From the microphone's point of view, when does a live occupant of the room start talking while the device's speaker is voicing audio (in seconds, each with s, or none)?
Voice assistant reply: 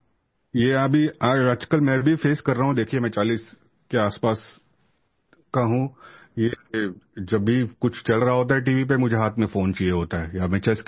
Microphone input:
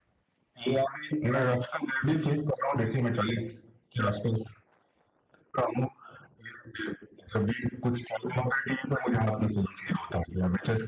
none